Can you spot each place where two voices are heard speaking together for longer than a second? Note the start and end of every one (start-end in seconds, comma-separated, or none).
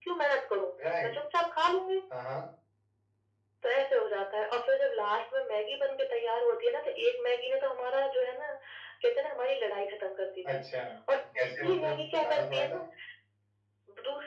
11.2-12.8